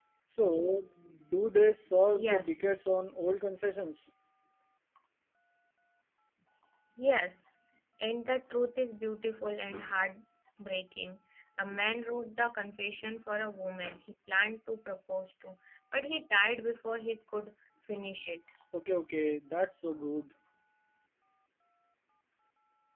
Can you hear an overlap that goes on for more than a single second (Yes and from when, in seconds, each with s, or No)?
No